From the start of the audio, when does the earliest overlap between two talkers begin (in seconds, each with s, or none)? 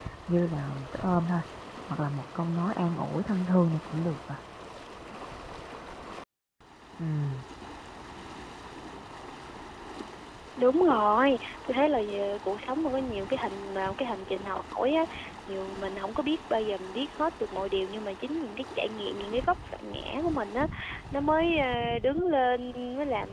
none